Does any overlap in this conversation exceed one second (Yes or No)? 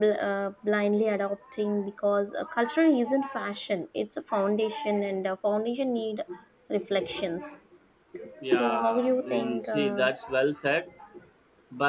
Yes